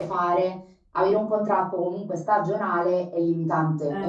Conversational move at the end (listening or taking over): taking over